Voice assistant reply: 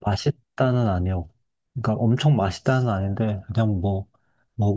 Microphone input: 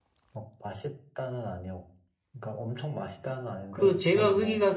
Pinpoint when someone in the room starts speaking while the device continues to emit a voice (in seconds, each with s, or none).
3.7 s